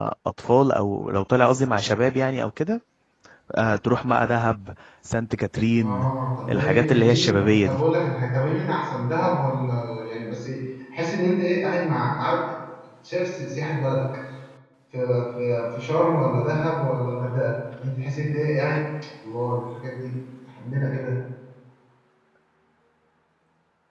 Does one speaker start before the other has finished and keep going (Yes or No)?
Yes